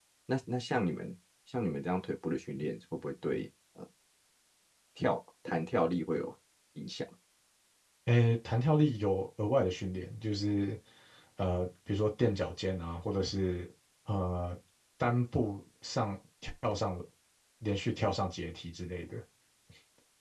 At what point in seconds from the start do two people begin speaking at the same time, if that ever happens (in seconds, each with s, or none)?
none